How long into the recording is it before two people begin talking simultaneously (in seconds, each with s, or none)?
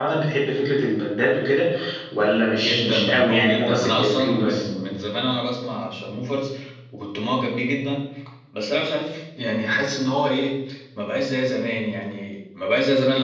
2.5 s